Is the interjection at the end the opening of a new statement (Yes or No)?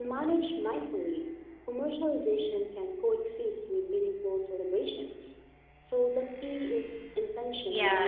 Yes